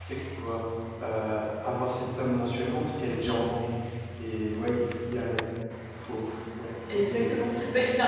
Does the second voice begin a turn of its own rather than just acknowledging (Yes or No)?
Yes